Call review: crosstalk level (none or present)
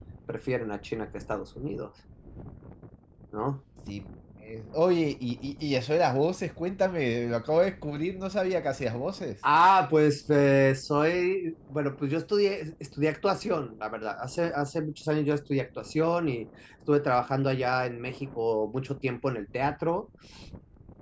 none